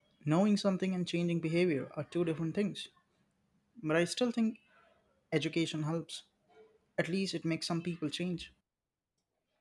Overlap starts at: none

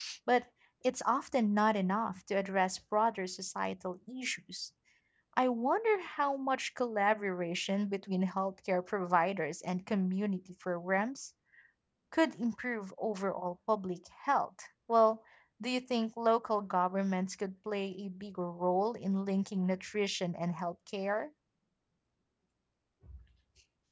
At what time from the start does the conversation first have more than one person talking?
none

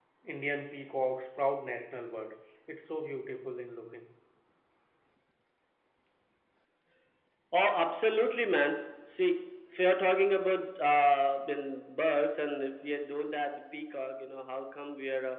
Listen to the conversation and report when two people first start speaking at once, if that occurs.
none

